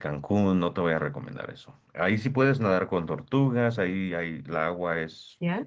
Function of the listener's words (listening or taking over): listening